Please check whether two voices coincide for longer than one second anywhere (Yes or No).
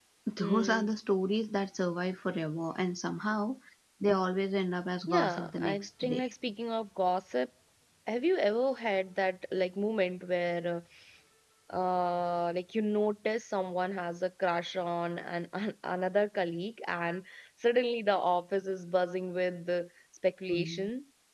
Yes